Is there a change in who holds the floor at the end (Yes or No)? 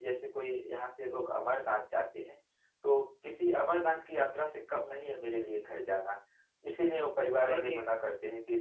No